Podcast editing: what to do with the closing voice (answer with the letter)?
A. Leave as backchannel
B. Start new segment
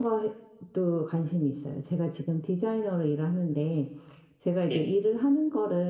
A